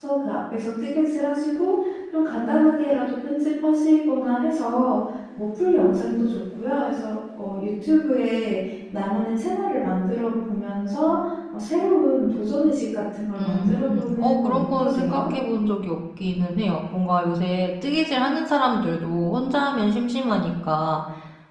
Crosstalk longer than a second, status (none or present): present